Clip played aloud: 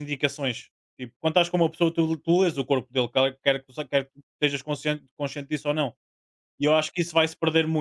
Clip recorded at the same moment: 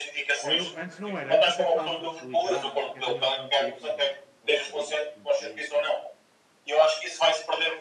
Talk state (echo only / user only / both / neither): both